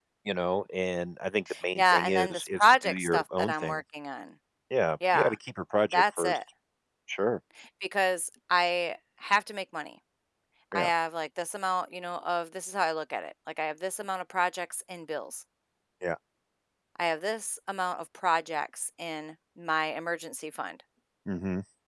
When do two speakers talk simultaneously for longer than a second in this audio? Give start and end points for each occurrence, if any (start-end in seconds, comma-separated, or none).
1.8-3.8